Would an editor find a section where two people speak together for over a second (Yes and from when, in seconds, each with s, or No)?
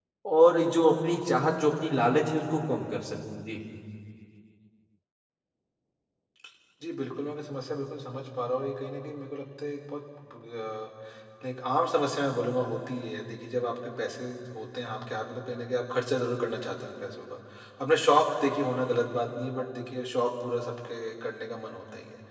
No